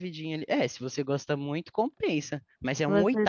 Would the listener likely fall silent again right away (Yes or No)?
No